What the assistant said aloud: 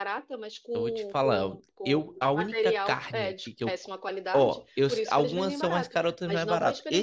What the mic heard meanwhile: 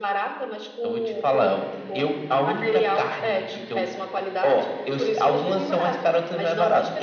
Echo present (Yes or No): Yes